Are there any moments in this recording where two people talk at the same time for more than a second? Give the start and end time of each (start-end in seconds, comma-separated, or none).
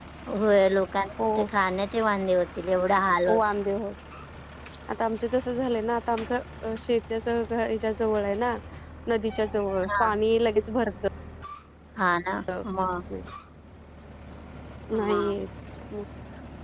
none